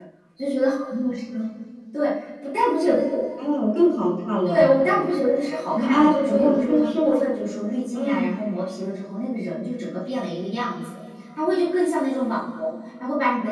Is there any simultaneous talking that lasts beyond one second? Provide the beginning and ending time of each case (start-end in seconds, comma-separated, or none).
5.8-7.2